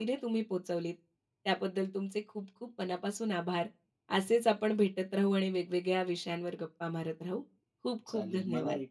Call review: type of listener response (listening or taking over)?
taking over